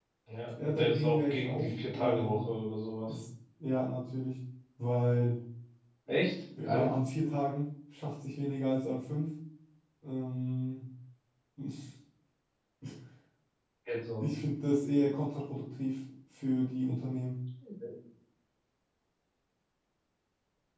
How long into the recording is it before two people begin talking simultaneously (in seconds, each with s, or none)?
0.6 s